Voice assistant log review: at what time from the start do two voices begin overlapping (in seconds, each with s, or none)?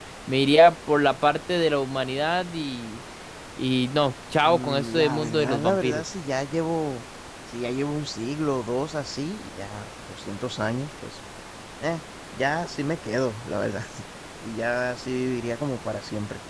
4.4 s